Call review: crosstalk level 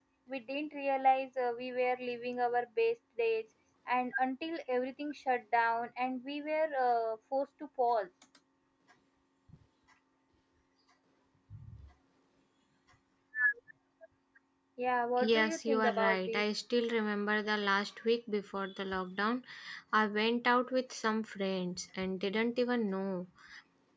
present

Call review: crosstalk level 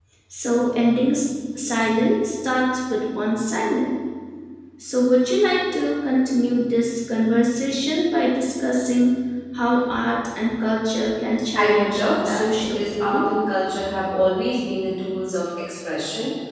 present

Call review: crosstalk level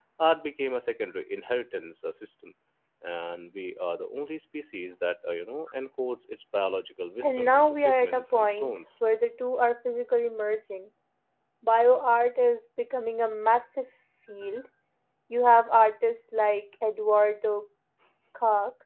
present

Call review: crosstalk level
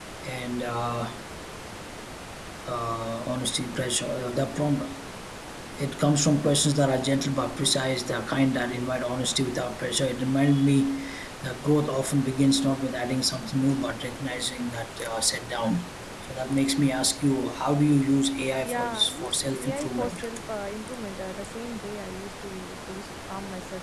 present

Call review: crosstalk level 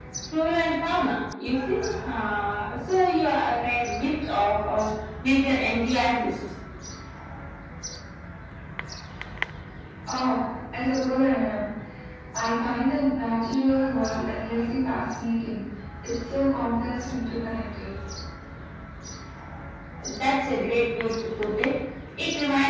none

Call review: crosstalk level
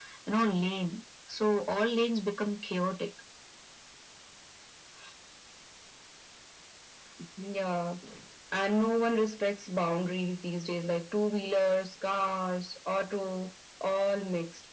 none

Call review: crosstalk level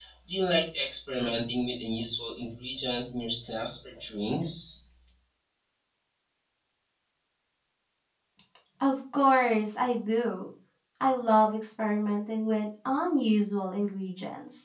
none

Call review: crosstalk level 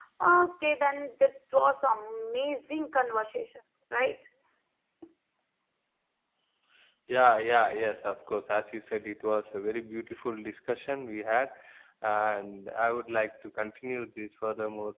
none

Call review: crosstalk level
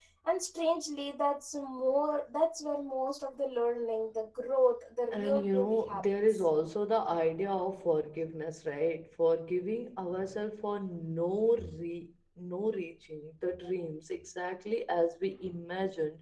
present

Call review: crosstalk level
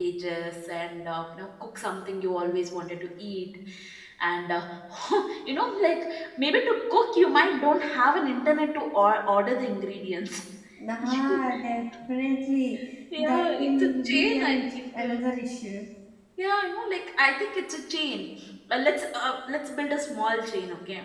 present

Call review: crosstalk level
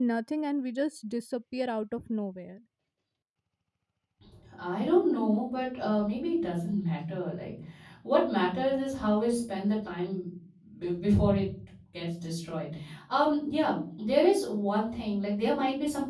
none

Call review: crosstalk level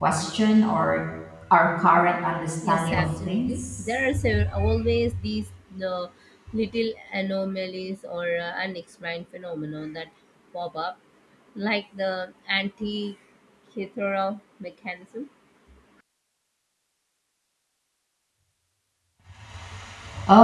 present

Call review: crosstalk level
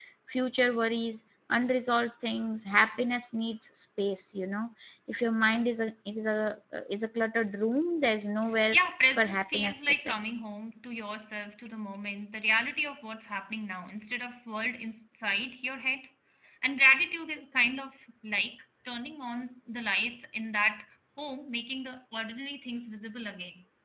present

